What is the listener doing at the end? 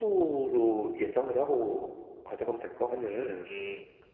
taking over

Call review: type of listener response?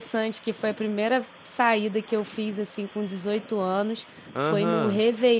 listening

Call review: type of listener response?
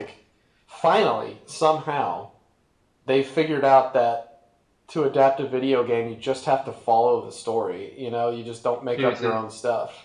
listening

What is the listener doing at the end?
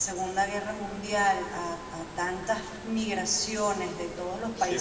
listening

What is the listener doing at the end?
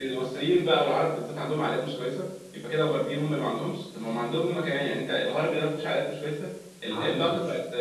listening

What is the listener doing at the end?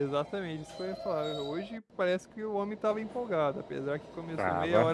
listening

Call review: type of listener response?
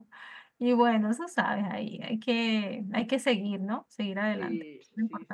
taking over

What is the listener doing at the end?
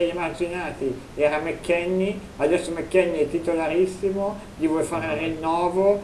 listening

